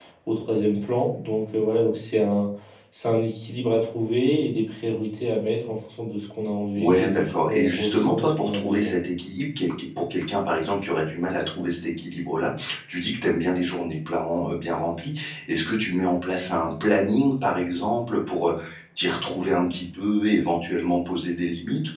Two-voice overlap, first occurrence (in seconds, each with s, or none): 6.8 s